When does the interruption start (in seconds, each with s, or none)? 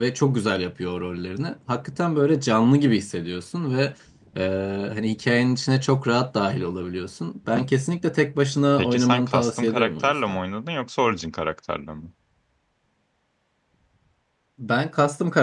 8.8 s